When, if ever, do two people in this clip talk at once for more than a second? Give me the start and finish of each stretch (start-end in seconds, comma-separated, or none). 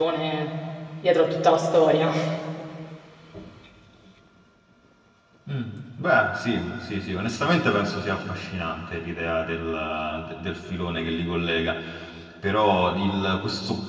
none